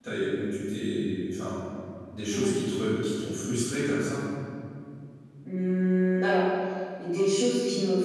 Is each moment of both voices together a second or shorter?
Yes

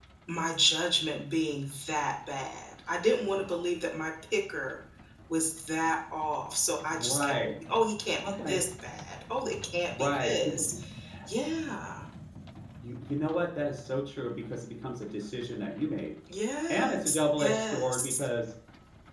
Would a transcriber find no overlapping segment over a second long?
No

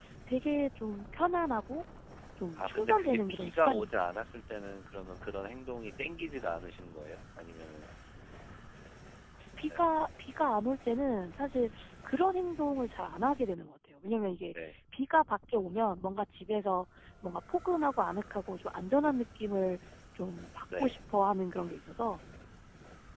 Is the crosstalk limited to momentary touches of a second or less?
No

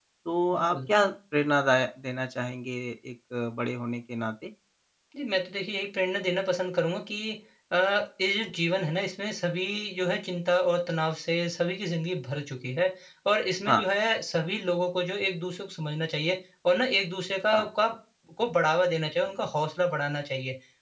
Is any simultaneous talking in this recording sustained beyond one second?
No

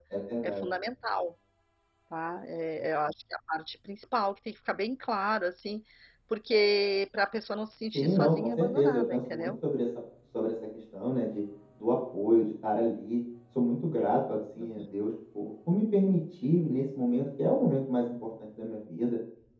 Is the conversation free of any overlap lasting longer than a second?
No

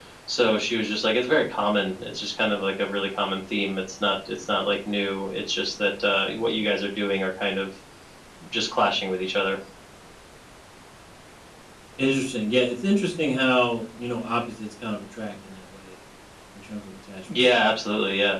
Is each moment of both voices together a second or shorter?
Yes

